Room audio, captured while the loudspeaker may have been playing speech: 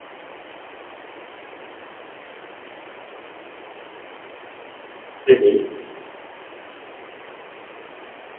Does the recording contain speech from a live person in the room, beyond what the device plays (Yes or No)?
Yes